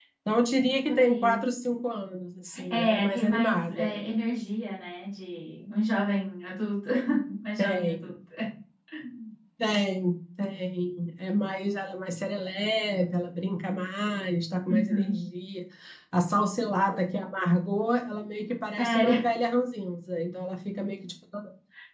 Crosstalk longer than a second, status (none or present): present